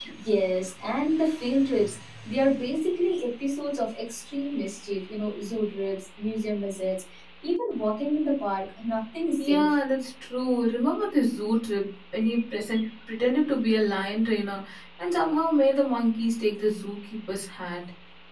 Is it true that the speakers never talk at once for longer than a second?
Yes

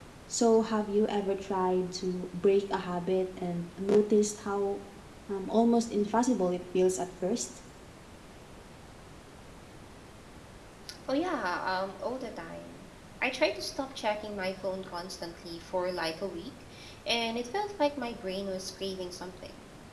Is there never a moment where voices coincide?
Yes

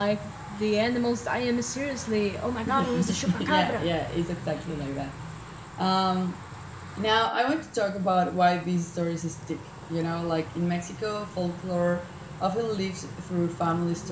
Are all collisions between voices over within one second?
No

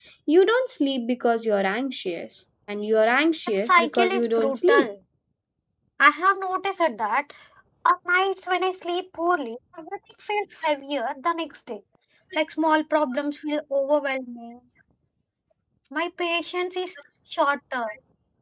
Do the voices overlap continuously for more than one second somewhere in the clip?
Yes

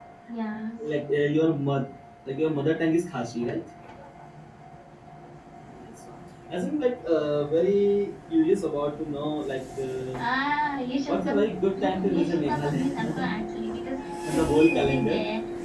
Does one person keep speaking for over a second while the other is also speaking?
Yes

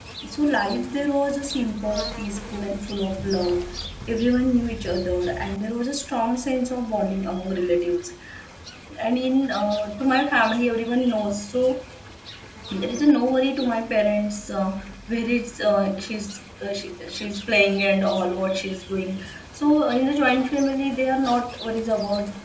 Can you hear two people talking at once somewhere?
No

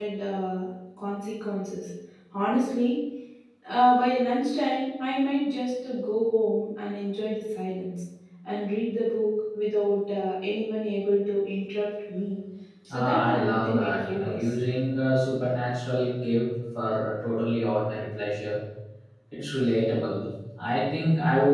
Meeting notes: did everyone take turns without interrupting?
No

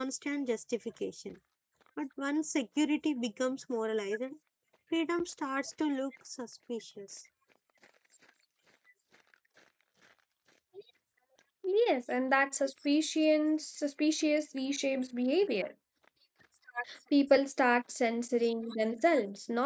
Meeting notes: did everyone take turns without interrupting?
Yes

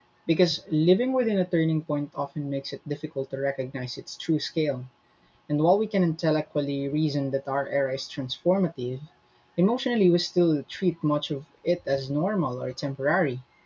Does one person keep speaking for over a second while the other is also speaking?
No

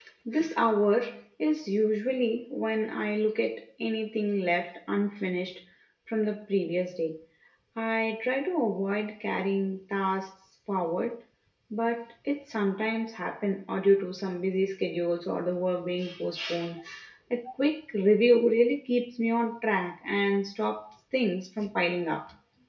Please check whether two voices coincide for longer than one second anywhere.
No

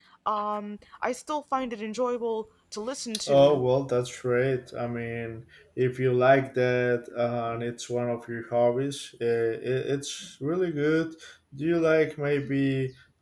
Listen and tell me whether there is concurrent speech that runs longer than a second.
No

